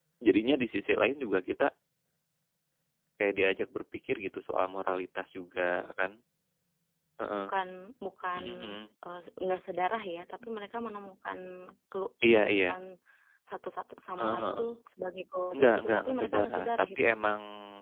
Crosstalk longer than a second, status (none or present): present